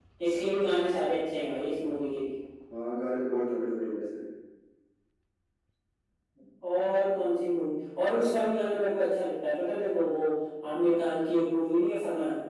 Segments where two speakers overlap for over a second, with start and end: none

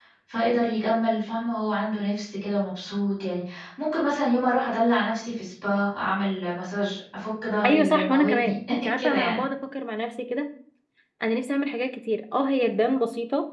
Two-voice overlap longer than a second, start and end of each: 7.6-9.4

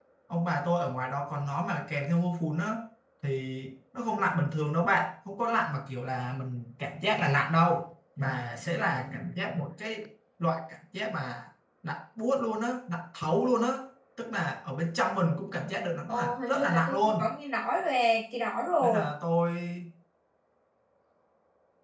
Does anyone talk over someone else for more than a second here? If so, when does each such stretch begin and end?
16.1-17.3

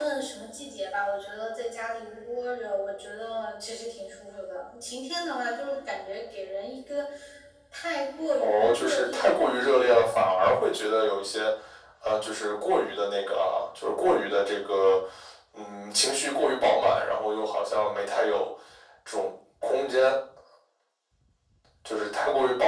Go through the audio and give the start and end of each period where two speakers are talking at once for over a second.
8.4-10.1

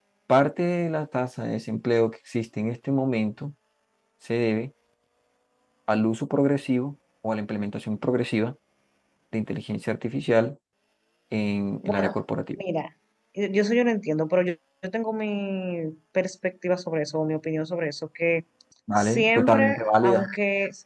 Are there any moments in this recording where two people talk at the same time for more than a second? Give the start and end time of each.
19.0-20.3

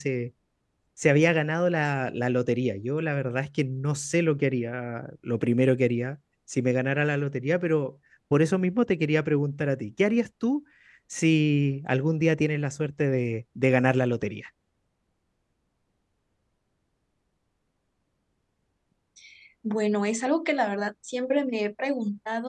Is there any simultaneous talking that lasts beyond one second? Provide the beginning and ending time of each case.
none

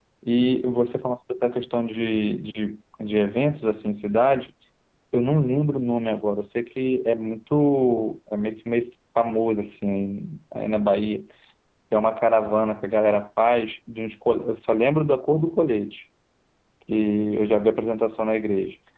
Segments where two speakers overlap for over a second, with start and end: none

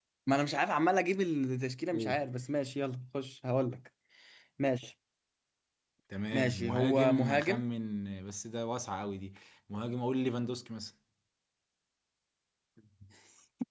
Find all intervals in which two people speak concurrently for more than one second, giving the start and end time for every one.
6.3-7.6

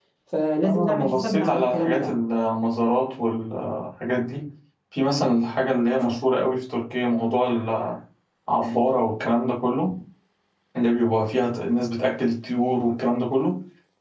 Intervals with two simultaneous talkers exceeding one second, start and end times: 0.7-2.1

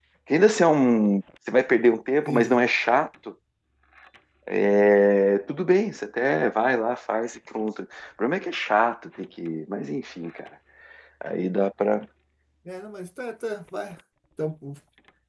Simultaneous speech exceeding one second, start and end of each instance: none

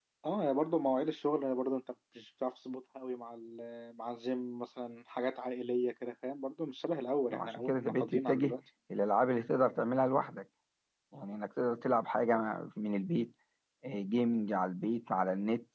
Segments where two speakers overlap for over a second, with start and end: 7.3-8.6

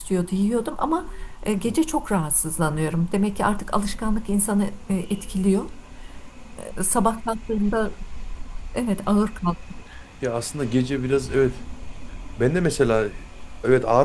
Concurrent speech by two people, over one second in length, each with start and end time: none

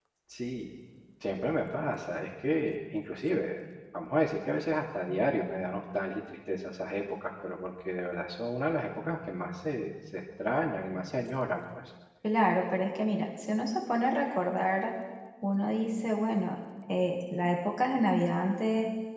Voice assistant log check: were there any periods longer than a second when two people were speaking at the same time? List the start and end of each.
none

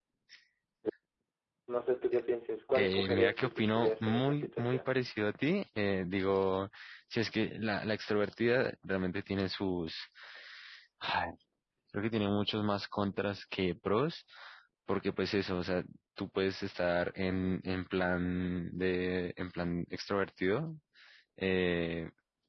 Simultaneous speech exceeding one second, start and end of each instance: 2.8-4.9

